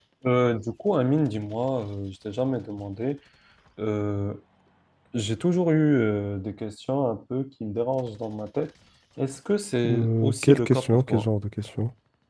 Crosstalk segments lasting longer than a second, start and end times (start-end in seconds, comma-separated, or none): 9.9-11.3